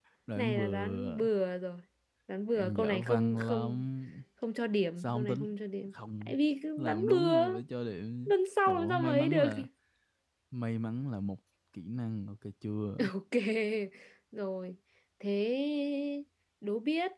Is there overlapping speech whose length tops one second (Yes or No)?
Yes